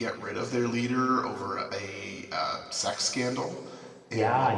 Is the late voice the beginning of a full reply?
Yes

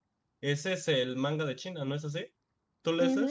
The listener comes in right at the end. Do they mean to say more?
Yes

